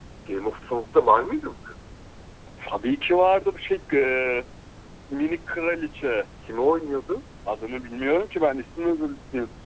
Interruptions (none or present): none